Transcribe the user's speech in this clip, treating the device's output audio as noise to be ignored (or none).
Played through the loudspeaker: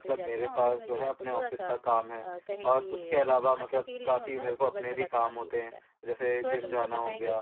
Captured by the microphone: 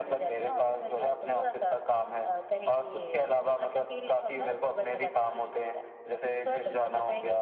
none